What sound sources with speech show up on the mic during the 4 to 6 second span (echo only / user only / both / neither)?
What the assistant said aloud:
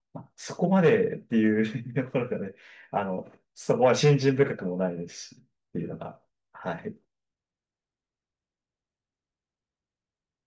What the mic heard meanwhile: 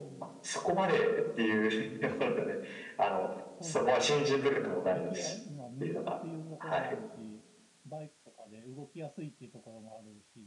both